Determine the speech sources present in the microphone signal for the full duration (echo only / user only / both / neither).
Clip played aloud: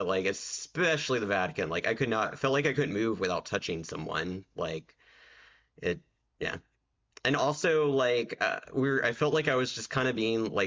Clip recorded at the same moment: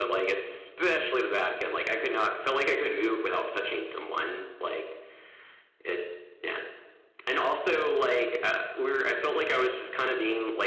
echo only